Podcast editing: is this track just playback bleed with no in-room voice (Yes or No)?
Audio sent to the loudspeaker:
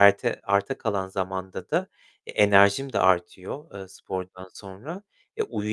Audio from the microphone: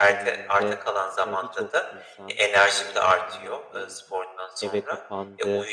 No